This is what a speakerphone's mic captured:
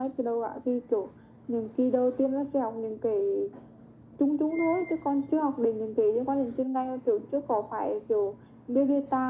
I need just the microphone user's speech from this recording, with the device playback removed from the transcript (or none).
none